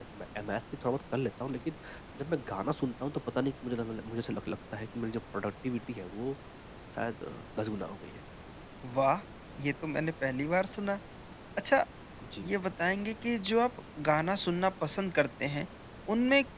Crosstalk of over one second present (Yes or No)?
No